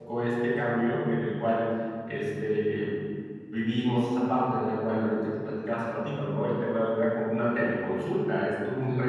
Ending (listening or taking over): listening